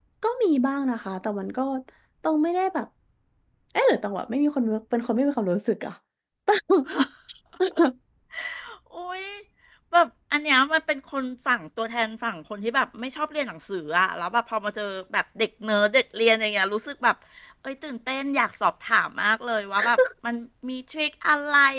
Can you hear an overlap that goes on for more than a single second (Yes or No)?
No